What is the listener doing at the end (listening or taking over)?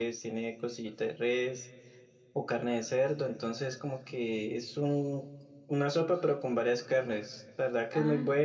listening